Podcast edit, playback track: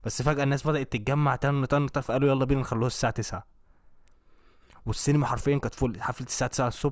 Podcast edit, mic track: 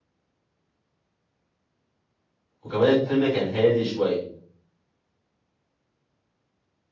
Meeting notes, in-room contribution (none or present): present